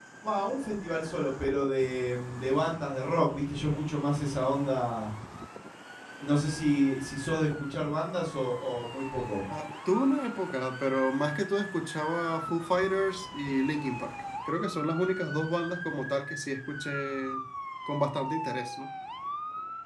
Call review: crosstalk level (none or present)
none